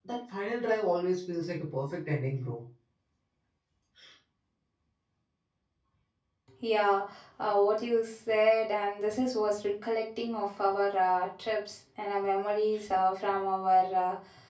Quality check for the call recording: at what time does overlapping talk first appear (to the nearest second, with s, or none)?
none